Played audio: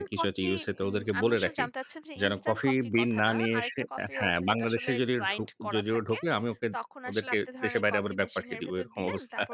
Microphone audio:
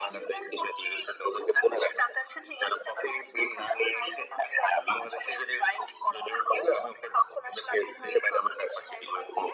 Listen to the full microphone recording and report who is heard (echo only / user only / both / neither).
echo only